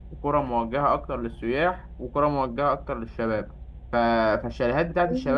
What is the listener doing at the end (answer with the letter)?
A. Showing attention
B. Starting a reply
A